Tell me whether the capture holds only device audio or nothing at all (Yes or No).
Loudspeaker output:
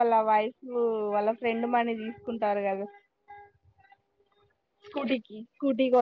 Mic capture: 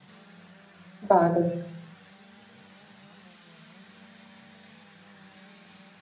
No